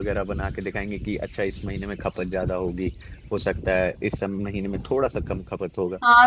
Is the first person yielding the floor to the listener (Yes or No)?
Yes